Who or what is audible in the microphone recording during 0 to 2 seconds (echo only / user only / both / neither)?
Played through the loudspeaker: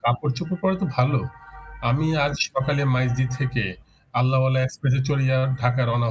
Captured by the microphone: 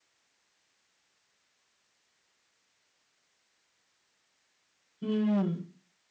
neither